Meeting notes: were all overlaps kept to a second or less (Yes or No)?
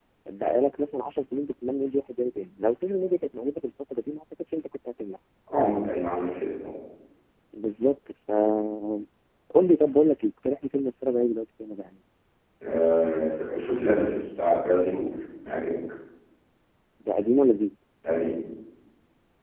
Yes